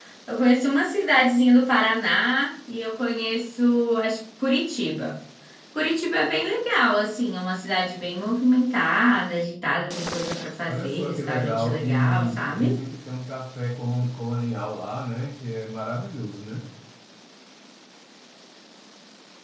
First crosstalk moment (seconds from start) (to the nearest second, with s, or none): 11 s